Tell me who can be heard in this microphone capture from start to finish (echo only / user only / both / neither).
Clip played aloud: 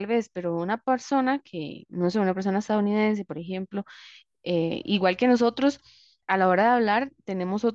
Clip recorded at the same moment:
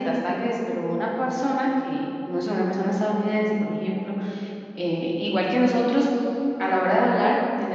echo only